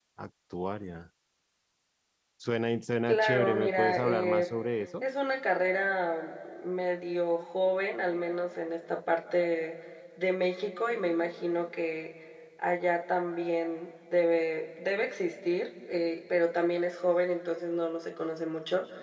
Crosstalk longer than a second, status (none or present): present